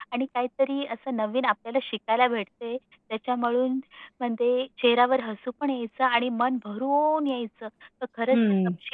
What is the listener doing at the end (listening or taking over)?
taking over